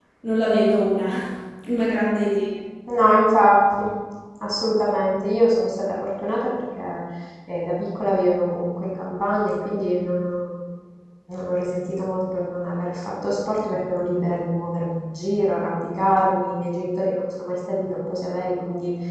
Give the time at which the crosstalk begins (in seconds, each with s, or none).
none